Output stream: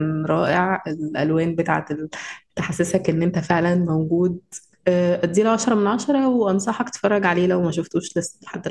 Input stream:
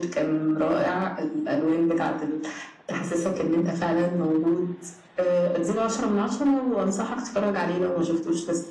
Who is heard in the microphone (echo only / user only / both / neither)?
echo only